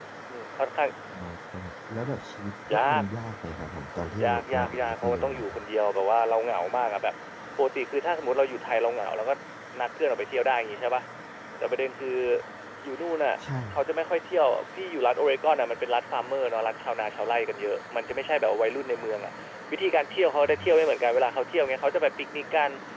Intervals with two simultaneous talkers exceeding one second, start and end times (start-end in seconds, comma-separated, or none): 4.2-5.7